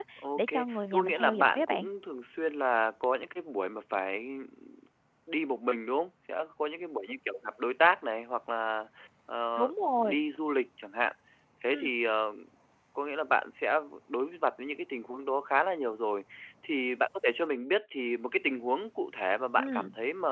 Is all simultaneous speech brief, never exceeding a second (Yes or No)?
No